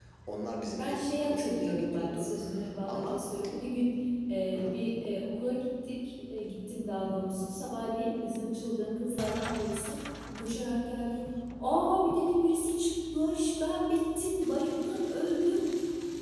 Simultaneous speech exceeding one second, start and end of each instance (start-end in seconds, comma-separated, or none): 0.8-2.3